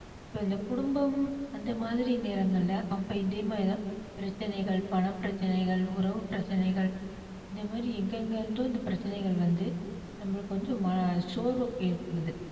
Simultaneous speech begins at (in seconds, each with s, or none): none